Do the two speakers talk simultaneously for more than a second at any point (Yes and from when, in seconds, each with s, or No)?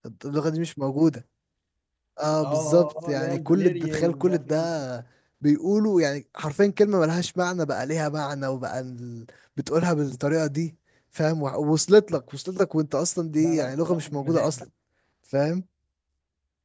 Yes, from 2.4 s